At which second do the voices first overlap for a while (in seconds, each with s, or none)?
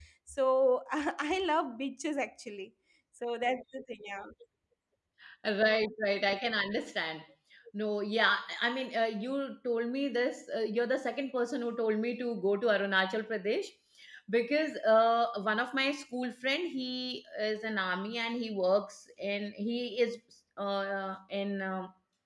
none